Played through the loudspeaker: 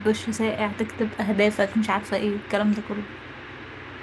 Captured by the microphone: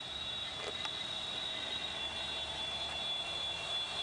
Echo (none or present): none